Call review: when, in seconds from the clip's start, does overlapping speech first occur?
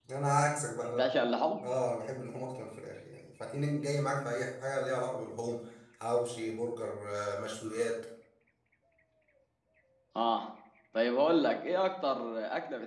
none

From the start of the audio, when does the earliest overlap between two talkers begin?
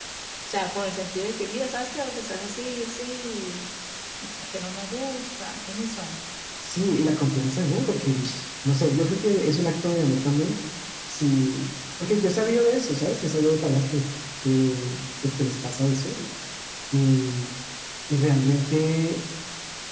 none

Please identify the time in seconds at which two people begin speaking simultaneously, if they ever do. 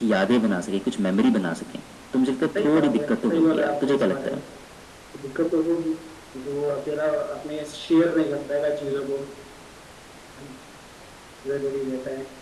2.5 s

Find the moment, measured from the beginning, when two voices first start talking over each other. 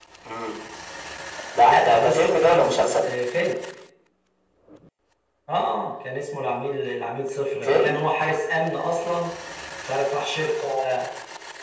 1.6 s

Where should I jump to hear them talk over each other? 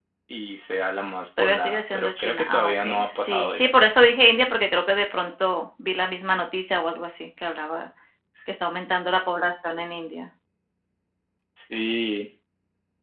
1.4 s

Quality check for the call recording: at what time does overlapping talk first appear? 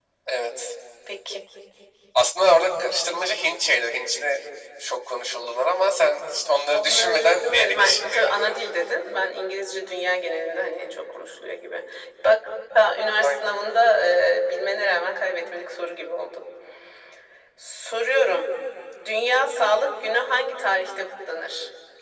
6.7 s

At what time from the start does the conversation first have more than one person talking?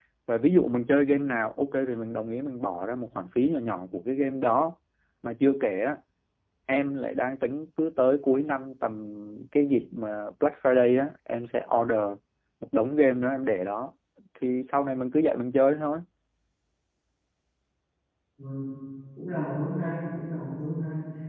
none

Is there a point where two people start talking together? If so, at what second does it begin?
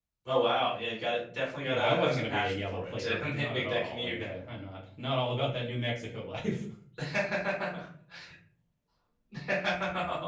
1.6 s

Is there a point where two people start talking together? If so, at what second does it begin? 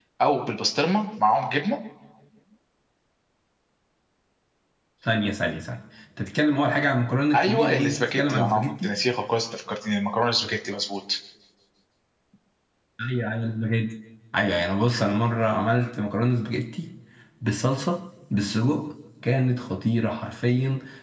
7.3 s

